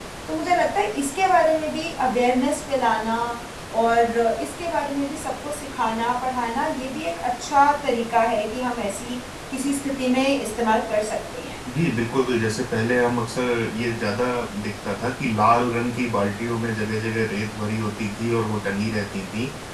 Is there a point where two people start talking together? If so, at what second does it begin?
none

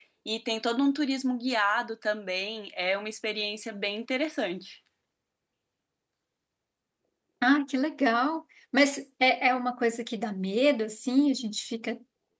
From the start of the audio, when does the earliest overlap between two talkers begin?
none

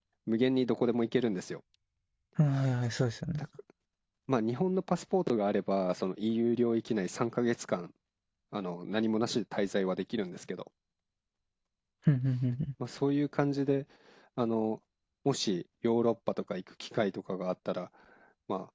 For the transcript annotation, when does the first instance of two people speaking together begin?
none

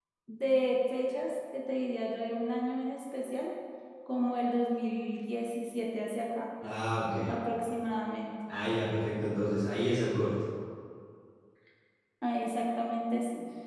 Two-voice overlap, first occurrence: none

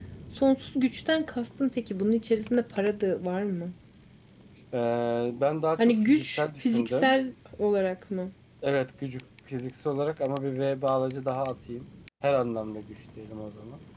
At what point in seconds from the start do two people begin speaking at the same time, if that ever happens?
6 s

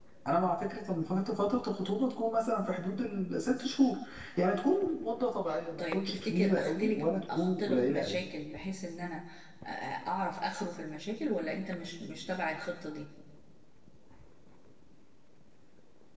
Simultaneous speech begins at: 6 s

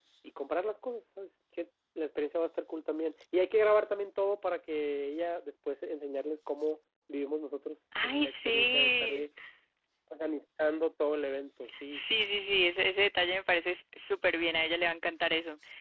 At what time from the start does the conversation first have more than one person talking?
8 s

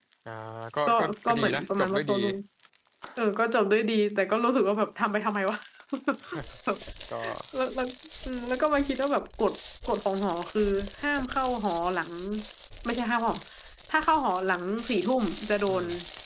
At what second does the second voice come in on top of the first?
1 s

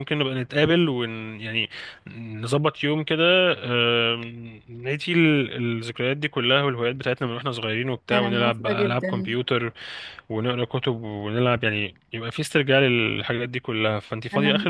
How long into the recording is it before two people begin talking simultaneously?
8 s

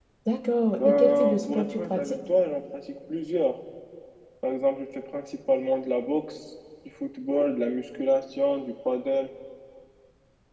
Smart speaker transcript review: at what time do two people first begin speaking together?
1 s

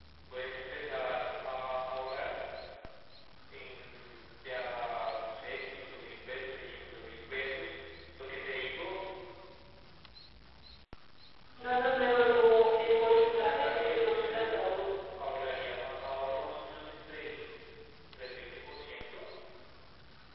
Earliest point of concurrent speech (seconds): 13 s

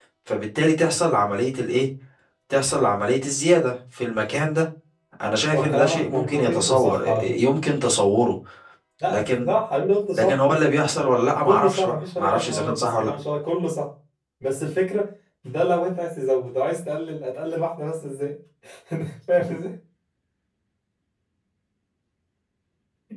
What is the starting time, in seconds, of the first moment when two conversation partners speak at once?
5 s

